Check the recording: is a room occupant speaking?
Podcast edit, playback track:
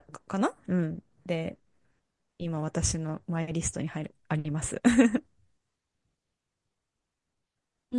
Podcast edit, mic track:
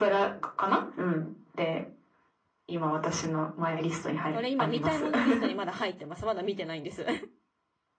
Yes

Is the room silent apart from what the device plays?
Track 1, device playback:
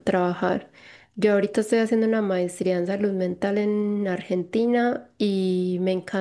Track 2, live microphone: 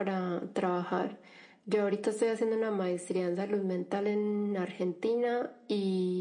Yes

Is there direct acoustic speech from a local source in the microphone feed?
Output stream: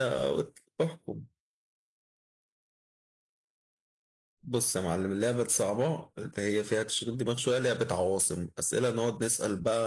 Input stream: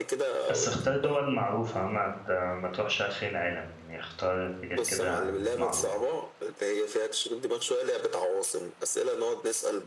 Yes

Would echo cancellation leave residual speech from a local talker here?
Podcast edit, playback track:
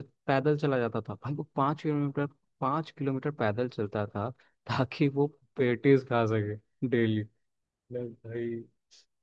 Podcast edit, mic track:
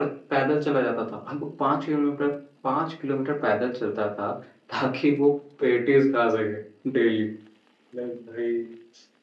No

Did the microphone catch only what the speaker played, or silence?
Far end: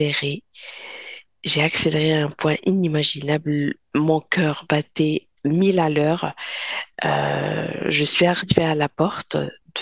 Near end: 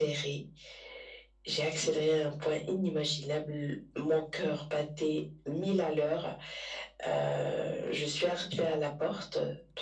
Yes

